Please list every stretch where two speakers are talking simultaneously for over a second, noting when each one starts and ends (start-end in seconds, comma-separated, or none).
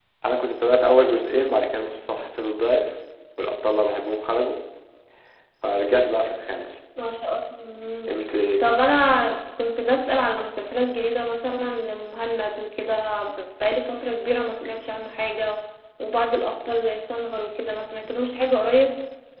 none